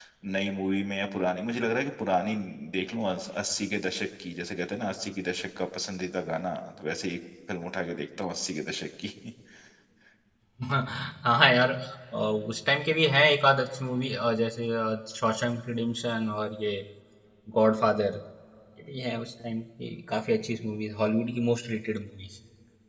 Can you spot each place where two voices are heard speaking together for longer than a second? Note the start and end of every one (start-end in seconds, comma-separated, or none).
none